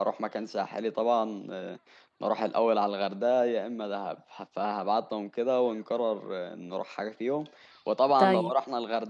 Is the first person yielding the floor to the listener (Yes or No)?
No